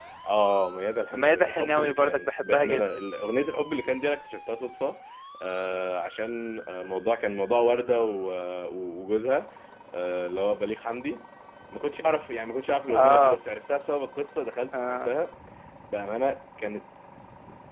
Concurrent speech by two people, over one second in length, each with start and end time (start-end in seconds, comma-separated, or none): 1.1-3.0